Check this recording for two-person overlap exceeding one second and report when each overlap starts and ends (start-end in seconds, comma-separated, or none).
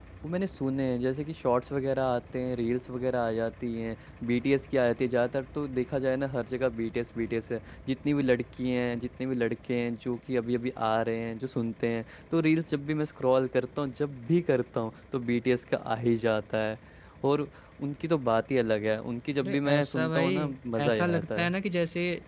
19.4-21.5